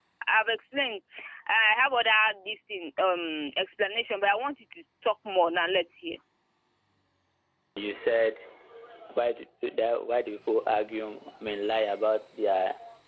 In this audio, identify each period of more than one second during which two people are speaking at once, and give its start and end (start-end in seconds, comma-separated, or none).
none